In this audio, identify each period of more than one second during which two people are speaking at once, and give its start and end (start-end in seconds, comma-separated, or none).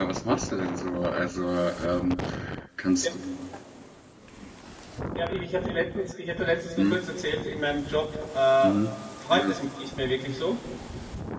none